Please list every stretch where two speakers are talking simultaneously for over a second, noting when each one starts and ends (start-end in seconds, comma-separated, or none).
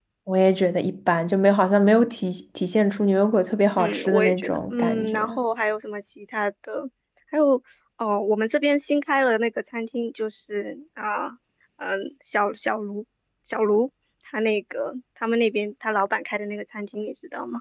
3.8-5.4